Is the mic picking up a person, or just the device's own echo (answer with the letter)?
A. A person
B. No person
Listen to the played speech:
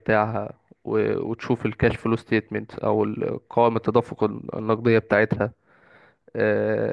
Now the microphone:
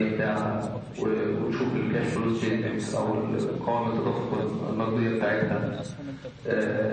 A